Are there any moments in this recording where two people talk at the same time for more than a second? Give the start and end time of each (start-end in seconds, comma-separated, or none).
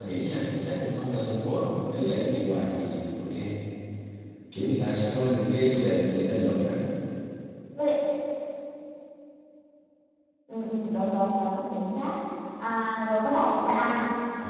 none